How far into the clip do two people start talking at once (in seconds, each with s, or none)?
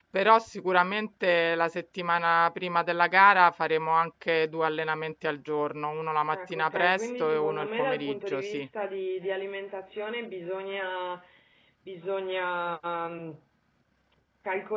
6.3 s